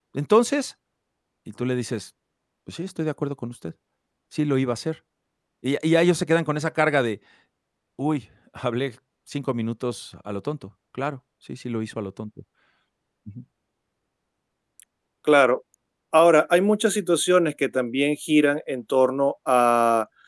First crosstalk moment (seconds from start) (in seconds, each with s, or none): none